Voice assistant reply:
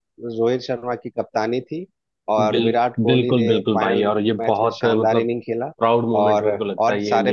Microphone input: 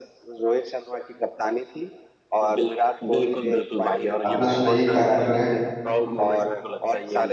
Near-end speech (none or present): present